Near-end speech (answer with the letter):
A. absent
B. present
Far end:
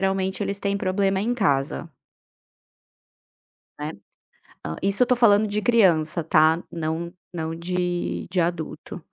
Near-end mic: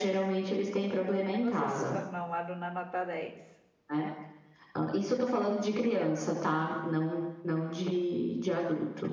B